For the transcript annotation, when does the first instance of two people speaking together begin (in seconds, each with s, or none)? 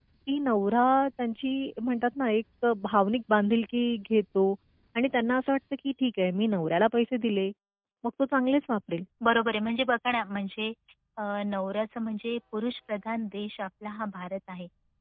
none